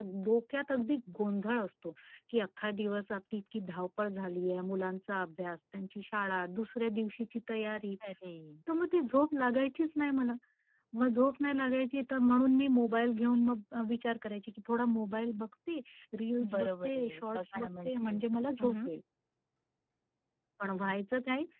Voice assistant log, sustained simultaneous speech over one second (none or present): present